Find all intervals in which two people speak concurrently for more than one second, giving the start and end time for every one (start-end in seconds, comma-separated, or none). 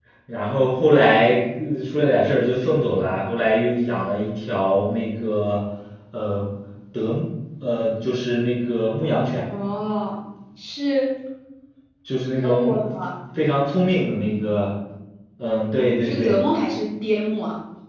none